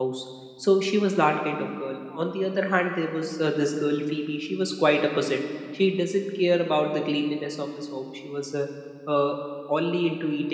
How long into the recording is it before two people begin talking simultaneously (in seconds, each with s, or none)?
none